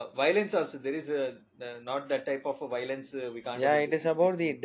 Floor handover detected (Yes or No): Yes